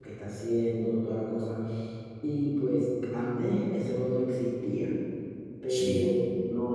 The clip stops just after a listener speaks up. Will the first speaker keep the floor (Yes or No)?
Yes